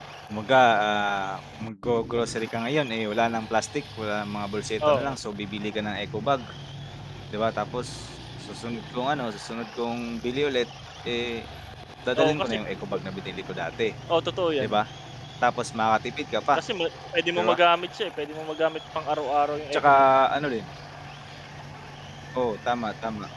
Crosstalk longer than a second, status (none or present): none